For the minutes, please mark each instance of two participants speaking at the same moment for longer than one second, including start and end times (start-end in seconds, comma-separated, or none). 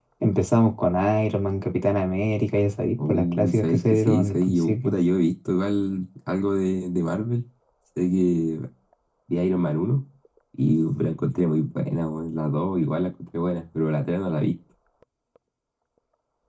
3.1-4.9